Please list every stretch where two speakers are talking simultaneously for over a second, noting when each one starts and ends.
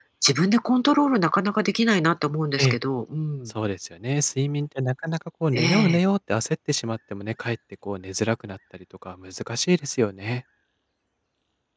none

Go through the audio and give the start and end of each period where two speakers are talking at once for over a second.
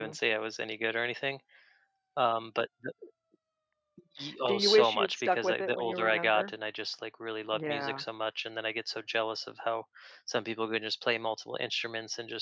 4.5-6.5

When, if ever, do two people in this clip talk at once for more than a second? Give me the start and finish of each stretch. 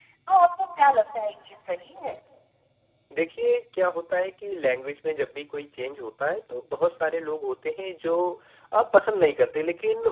none

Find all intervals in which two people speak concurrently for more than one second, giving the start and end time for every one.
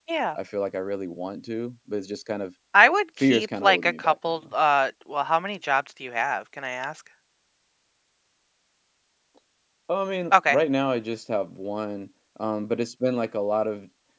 3.2-4.4

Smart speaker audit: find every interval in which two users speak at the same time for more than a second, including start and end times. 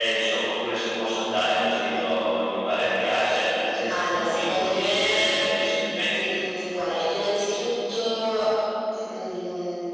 3.9-5.4

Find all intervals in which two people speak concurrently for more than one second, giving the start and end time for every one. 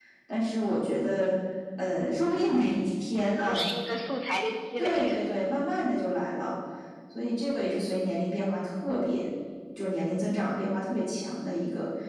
none

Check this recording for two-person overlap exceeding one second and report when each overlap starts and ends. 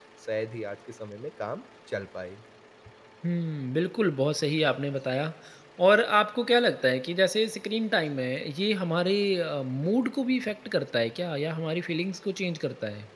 none

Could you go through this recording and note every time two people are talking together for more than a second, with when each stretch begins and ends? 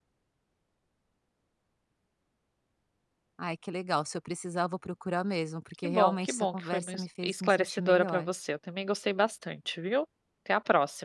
5.8-8.3

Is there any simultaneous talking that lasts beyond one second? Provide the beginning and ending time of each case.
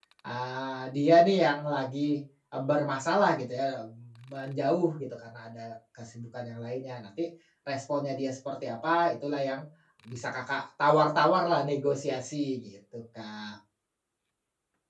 none

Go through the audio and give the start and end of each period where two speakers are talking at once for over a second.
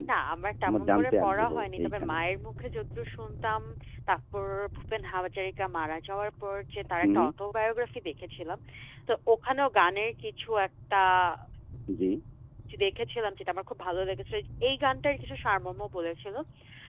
0.7-2.2

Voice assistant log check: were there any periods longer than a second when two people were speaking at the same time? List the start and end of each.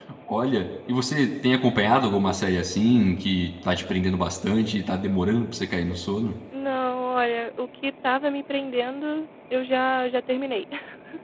none

